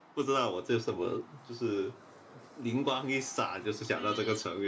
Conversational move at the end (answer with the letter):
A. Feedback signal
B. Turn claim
A